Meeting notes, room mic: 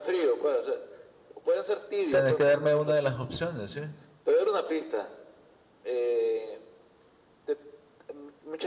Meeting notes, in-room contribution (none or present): present